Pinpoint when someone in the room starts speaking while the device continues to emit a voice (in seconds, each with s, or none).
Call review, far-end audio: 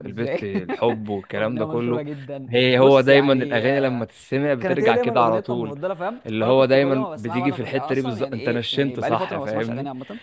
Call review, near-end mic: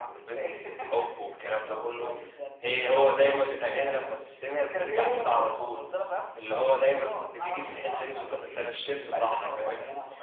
none